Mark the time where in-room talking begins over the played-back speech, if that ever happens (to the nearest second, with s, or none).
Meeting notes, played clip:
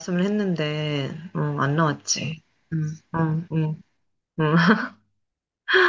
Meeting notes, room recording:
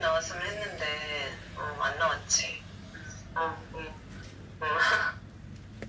none